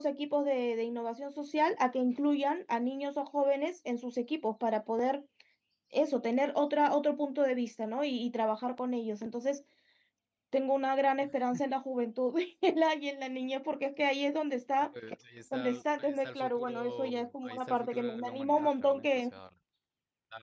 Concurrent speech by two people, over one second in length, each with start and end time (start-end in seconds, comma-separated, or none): 15.5-19.2